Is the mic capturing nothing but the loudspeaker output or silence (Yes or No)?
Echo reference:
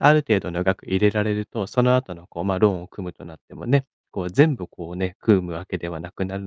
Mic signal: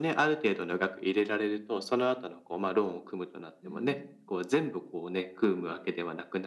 No